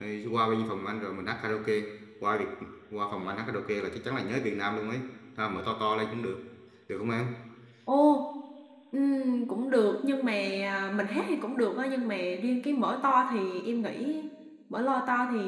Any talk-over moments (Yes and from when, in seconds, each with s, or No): No